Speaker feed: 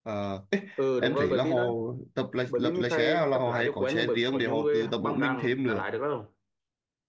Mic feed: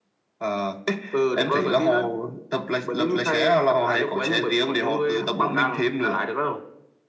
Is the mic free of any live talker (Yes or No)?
Yes